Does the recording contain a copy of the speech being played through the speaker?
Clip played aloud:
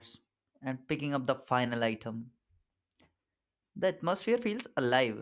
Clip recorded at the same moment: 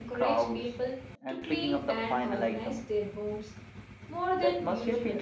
Yes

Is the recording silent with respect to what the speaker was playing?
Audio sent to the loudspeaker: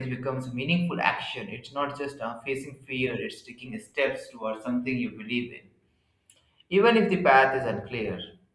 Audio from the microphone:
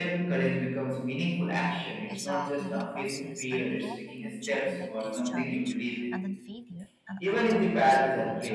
No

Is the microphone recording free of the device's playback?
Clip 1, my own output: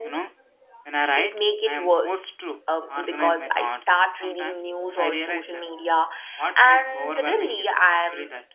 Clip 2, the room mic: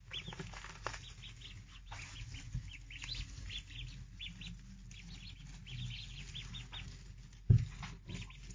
Yes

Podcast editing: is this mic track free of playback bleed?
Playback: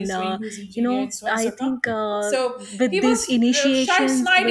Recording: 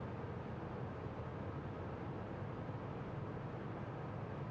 Yes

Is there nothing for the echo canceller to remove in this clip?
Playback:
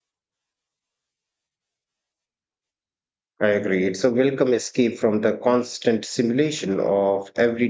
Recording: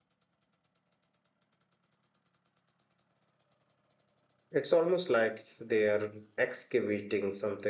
Yes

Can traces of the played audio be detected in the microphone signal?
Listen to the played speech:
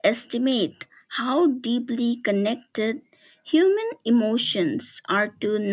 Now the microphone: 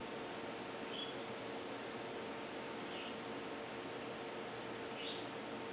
No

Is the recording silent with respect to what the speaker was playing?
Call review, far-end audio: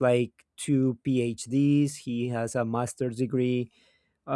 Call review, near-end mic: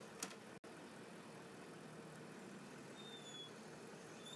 Yes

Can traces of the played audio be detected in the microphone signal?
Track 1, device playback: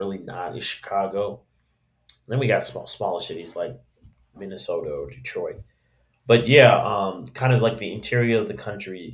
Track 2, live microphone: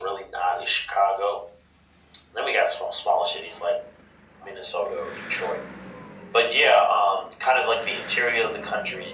Yes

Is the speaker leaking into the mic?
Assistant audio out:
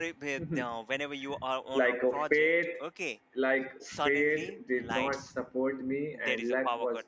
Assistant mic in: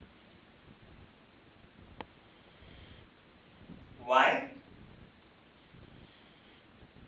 No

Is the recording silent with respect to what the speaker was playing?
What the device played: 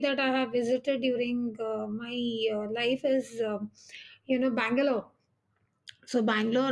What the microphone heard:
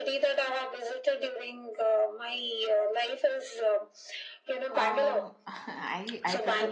No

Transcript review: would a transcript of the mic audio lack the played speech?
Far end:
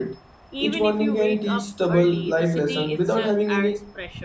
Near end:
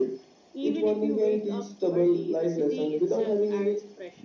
No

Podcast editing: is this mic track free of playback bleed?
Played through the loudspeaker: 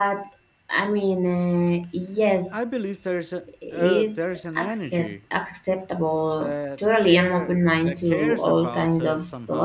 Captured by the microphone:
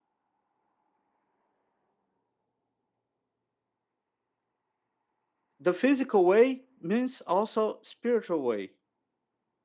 Yes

